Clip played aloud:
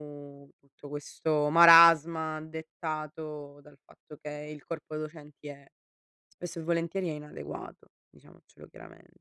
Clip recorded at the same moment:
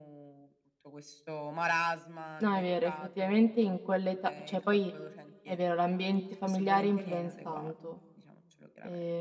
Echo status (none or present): present